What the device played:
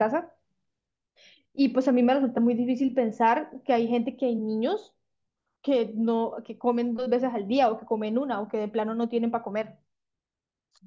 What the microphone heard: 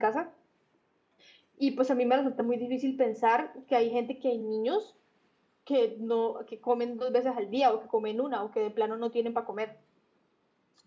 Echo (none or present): present